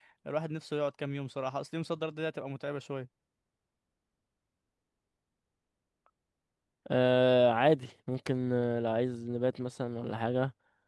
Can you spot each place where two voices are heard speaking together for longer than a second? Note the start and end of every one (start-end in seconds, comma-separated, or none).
none